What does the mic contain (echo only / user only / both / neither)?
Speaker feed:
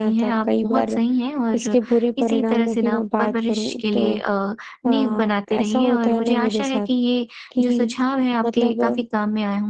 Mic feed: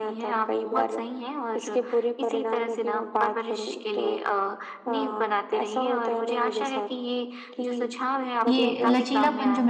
both